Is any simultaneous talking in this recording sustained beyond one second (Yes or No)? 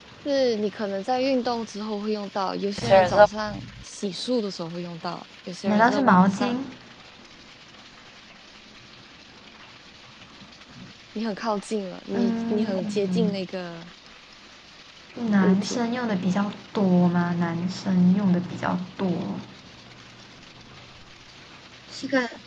Yes